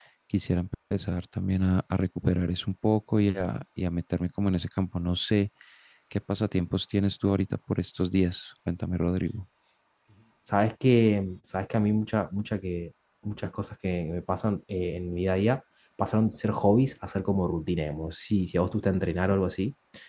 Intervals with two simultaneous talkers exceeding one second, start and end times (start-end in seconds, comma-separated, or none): none